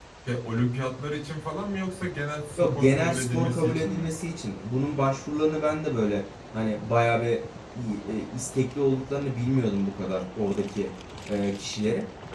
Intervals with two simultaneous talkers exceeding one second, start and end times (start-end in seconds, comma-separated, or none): 2.6-4.0